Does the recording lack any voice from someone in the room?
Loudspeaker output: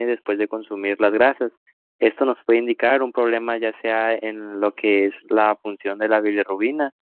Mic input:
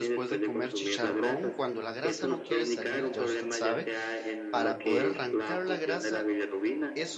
No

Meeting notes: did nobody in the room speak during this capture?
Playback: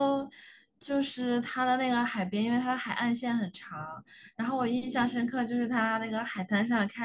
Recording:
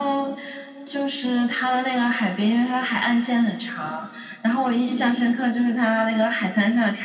Yes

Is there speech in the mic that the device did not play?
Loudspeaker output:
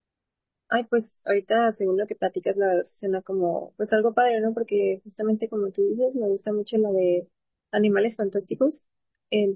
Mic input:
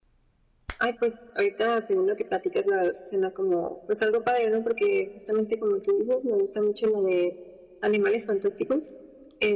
No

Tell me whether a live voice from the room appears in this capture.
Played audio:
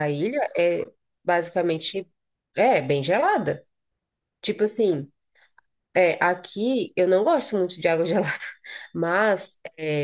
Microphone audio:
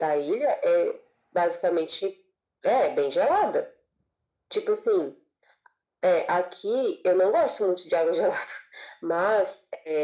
No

